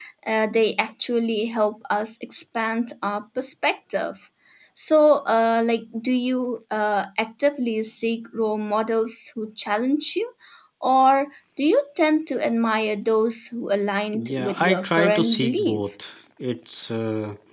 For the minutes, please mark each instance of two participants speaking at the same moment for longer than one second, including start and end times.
14.1-15.8

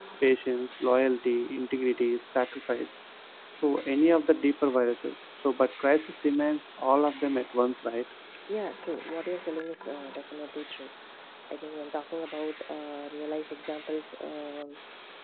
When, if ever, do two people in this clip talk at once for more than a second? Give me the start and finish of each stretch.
none

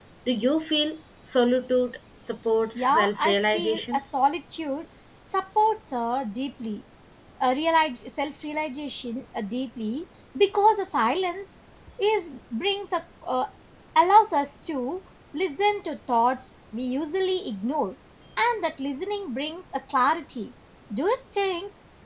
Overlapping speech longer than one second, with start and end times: 2.8-4.0

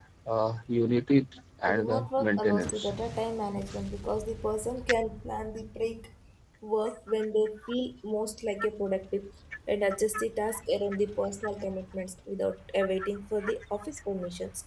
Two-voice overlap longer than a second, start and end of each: 1.7-2.9

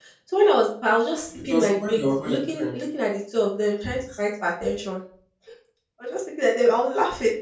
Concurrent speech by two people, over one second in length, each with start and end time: 1.5-2.7

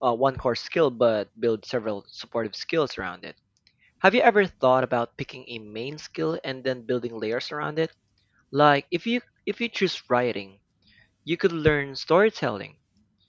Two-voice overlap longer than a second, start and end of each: none

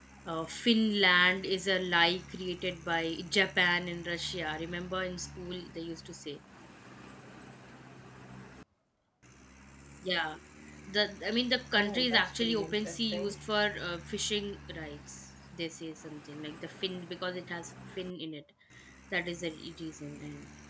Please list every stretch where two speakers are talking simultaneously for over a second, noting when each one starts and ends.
11.8-13.4

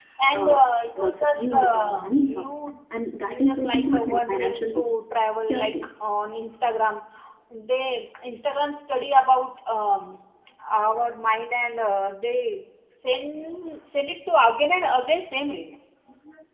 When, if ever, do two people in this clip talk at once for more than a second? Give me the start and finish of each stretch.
1.0-2.5, 3.3-4.8

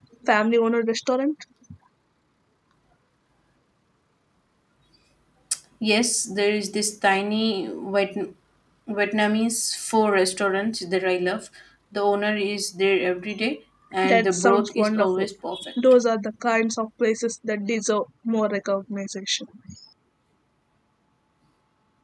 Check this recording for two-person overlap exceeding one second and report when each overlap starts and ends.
14.0-15.3

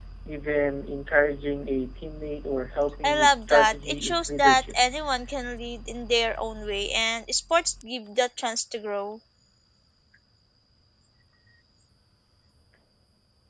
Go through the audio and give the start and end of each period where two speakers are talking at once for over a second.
3.0-4.7

